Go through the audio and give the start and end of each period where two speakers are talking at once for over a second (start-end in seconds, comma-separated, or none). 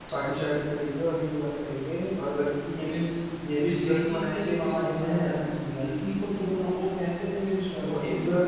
3.7-5.1